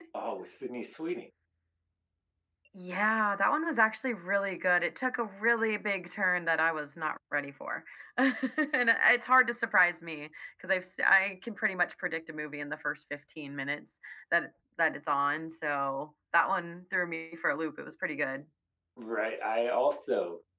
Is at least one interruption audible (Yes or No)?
No